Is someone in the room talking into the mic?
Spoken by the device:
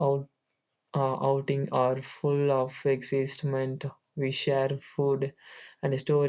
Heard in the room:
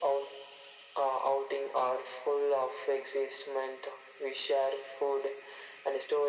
No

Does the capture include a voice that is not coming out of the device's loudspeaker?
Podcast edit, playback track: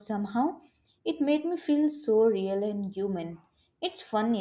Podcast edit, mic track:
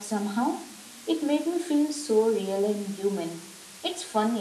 No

